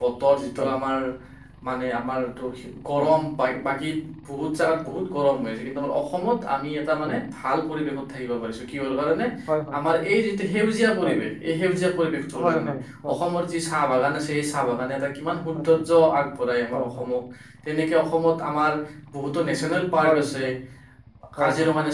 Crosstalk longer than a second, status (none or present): none